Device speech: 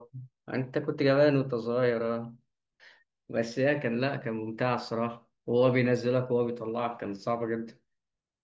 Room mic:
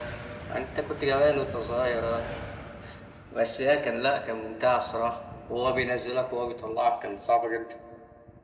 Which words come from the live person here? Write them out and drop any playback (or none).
none